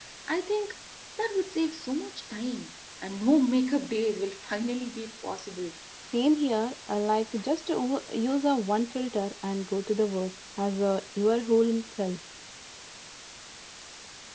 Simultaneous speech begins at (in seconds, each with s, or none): none